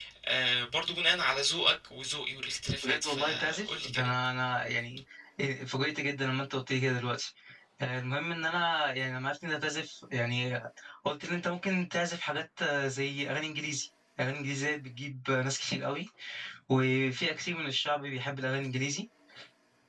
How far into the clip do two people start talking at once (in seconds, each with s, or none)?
2.8 s